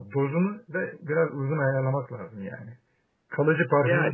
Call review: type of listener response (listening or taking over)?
listening